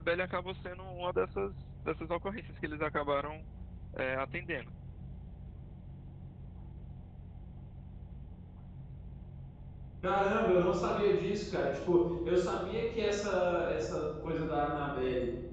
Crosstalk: none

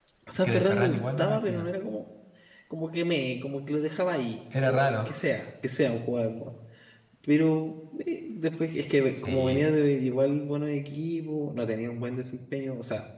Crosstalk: present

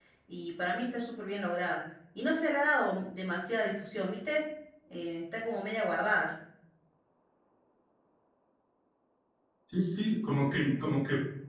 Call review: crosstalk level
none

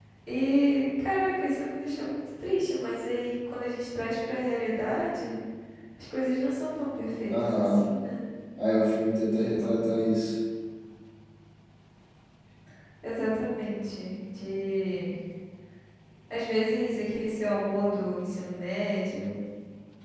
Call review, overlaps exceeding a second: none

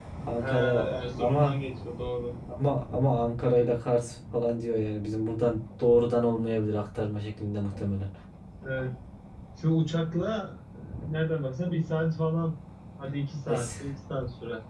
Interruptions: present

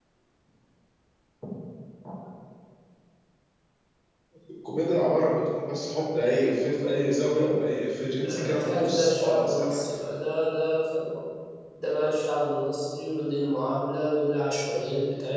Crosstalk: present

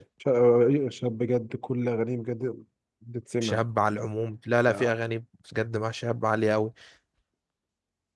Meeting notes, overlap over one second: none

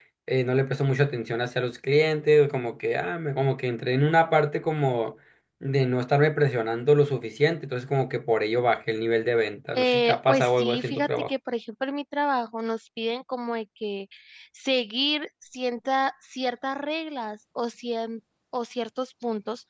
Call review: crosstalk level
present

